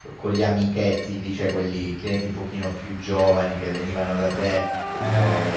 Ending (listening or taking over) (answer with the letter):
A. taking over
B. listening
B